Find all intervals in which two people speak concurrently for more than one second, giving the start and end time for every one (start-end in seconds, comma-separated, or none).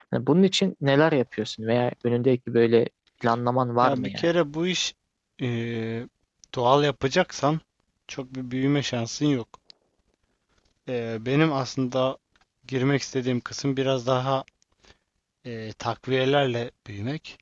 none